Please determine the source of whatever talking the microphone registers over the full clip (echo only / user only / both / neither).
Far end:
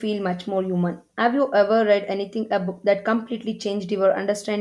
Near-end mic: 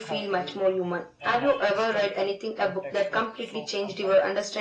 both